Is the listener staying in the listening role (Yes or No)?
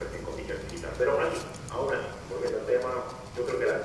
Yes